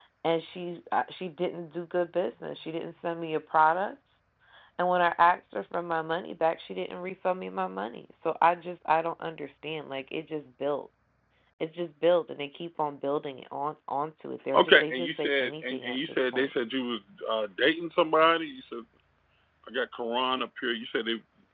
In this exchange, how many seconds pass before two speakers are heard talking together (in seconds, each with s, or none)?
14.5 s